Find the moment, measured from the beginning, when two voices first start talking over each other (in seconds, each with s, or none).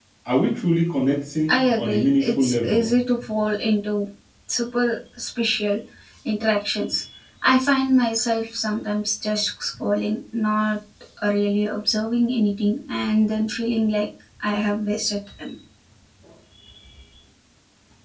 1.5 s